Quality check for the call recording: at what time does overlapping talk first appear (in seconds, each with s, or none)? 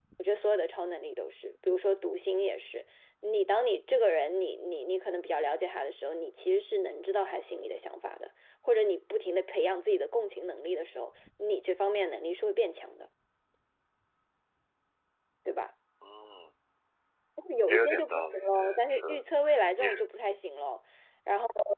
17.7 s